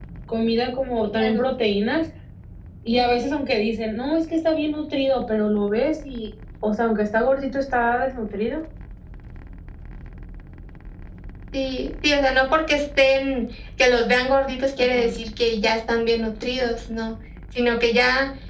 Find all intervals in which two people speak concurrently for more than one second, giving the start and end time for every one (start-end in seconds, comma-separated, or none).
none